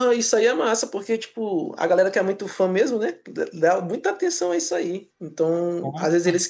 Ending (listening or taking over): listening